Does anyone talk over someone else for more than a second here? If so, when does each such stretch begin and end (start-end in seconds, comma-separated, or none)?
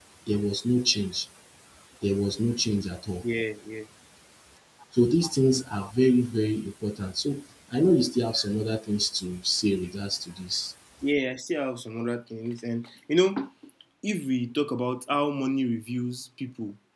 none